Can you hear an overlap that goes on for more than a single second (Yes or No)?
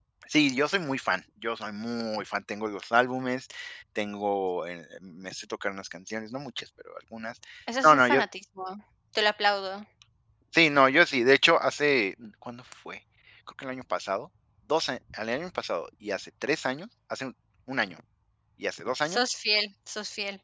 No